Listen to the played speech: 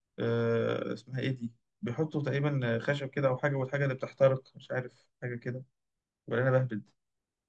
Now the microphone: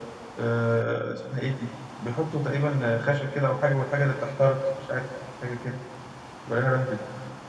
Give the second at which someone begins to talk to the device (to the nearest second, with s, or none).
none